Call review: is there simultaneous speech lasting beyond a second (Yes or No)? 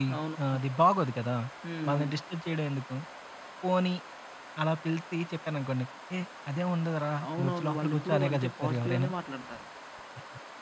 Yes